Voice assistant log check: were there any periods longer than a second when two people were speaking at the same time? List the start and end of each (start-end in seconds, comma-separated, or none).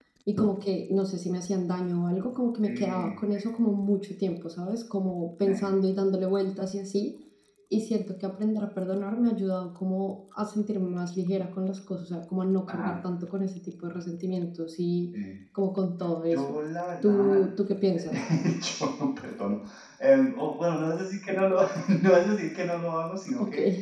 none